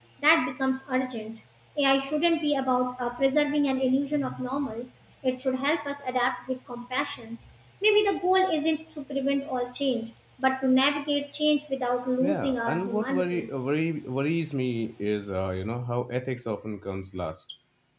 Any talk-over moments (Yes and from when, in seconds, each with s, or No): Yes, from 12.2 s